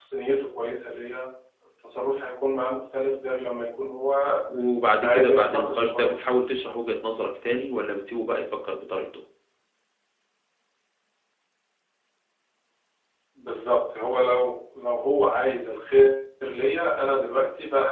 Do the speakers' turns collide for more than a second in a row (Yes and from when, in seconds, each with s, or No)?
Yes, from 5.0 s